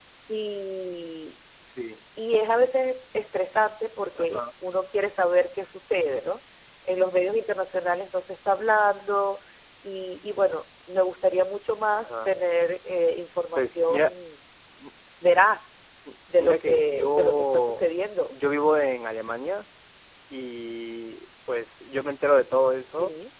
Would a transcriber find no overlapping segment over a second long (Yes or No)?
No